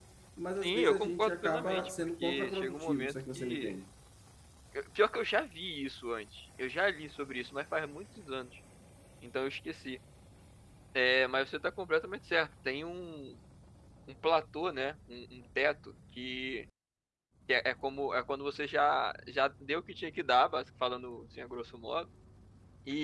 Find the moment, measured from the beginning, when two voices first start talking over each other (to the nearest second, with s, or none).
1 s